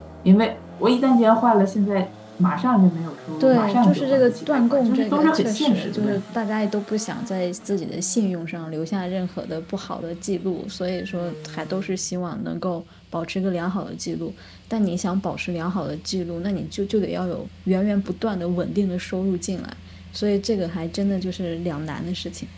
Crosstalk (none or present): present